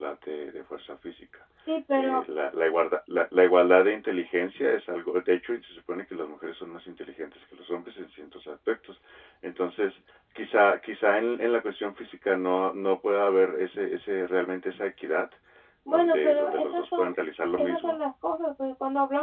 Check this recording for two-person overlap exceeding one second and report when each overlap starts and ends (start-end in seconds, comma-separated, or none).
15.9-17.1